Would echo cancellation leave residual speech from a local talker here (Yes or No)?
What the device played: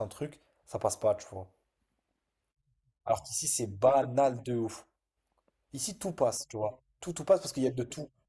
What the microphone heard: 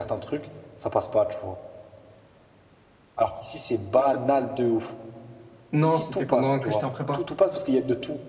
Yes